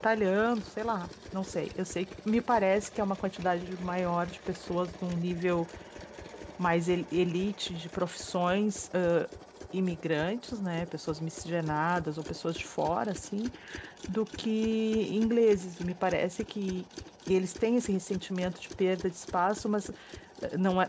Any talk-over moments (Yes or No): No